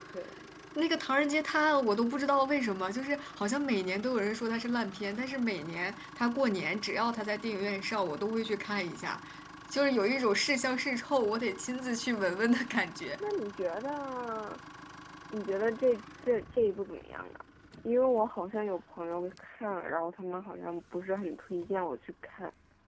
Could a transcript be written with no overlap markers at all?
Yes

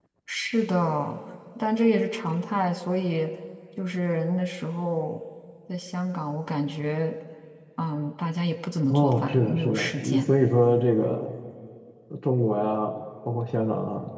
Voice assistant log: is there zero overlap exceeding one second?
No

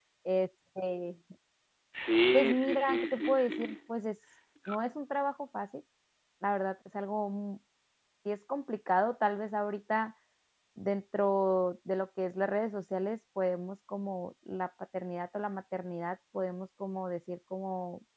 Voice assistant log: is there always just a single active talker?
No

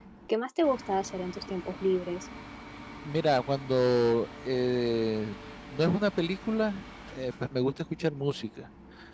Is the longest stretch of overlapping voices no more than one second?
Yes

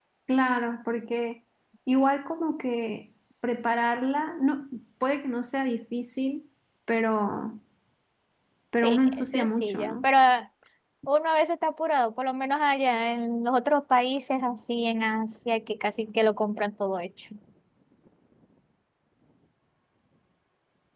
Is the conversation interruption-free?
No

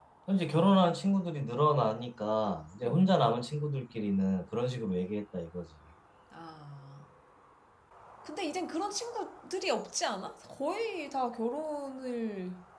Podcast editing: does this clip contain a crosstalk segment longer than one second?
No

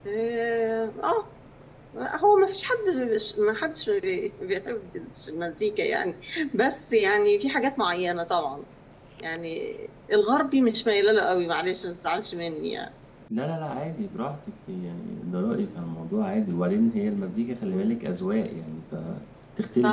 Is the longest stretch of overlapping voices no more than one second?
Yes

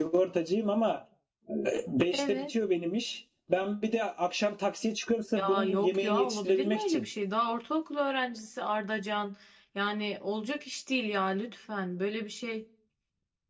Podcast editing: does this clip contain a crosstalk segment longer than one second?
Yes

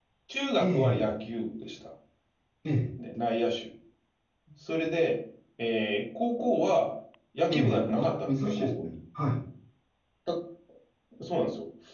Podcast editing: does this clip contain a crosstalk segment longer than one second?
Yes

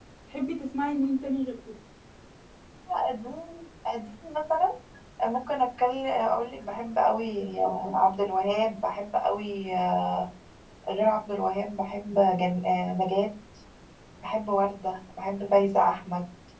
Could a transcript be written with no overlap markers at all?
Yes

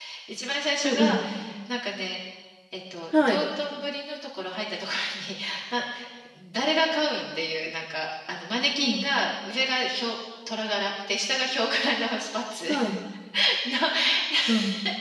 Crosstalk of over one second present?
No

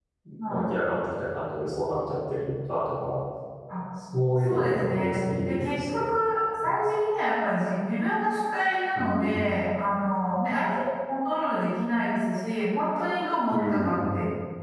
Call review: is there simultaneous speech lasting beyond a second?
Yes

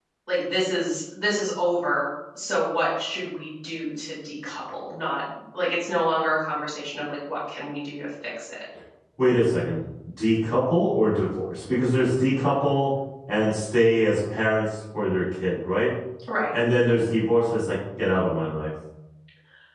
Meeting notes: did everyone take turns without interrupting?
Yes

